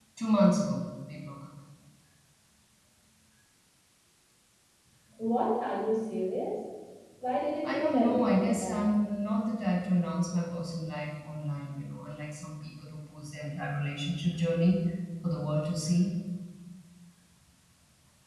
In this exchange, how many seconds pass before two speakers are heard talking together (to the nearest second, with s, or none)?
8 s